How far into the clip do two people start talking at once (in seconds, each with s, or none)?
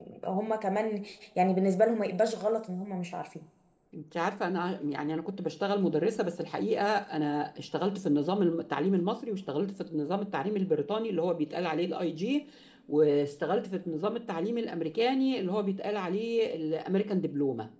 none